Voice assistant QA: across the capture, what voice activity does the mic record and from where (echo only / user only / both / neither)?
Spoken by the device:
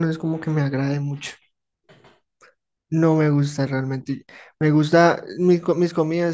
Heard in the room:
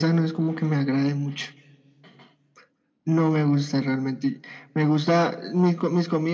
echo only